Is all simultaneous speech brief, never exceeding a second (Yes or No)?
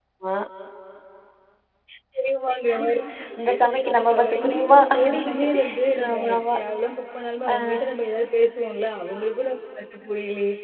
No